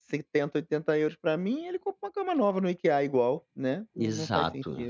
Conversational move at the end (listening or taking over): taking over